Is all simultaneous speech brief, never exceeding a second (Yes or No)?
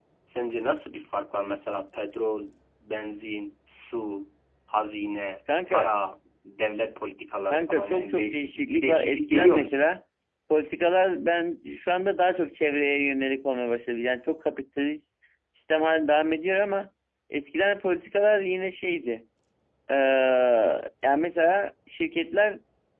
No